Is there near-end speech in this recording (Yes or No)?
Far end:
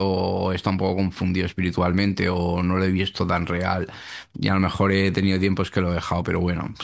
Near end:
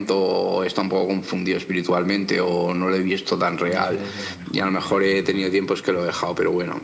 Yes